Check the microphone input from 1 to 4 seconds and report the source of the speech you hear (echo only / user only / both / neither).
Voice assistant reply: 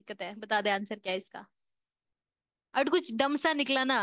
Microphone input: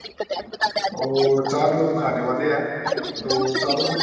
both